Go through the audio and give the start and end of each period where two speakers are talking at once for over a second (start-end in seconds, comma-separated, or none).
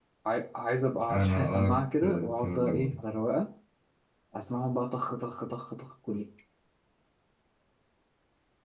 1.1-3.0